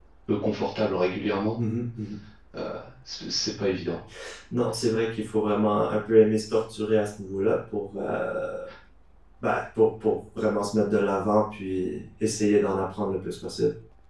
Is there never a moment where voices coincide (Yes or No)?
Yes